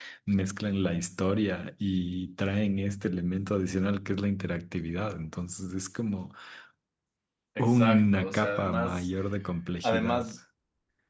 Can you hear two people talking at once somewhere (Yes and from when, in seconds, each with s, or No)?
Yes, from 7.6 s